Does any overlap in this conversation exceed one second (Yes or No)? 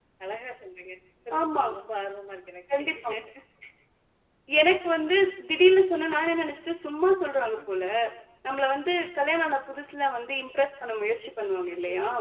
No